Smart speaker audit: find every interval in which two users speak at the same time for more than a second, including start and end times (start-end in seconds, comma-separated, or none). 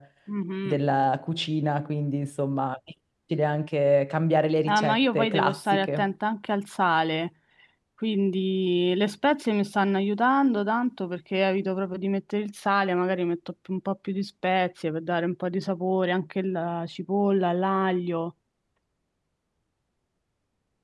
4.7-6.0